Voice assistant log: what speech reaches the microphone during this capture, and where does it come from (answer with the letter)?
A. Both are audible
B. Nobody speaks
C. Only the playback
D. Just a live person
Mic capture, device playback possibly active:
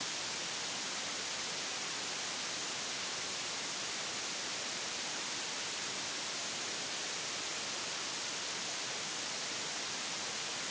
B